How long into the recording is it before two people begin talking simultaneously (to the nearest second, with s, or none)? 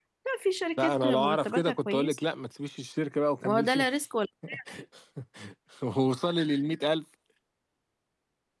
1 s